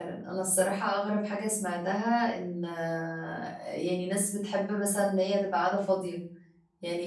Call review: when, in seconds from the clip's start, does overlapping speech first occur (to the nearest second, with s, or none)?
none